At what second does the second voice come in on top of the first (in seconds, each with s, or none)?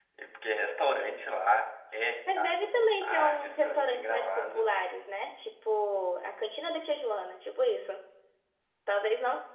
2.3 s